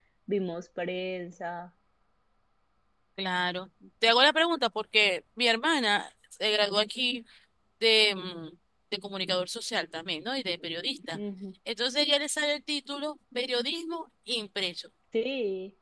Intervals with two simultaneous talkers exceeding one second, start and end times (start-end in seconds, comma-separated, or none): none